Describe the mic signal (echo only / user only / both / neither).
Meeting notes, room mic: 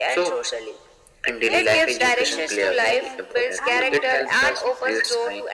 both